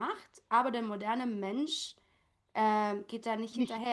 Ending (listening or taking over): listening